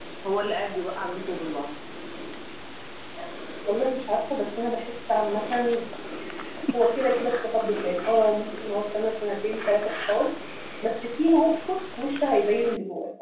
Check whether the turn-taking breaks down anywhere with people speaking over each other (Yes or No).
No